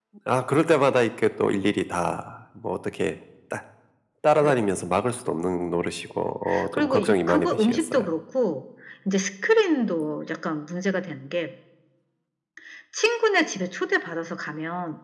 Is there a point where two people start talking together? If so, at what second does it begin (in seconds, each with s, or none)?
6.7 s